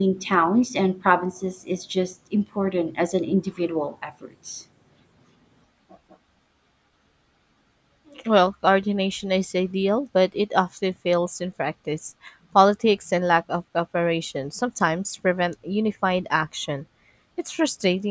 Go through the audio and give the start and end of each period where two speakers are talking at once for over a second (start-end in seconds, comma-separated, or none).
none